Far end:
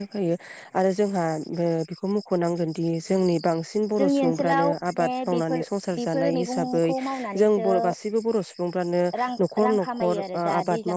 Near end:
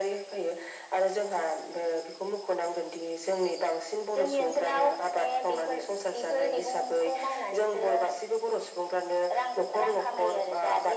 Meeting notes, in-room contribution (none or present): none